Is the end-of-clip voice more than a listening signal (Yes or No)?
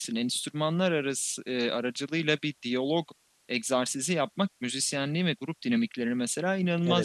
No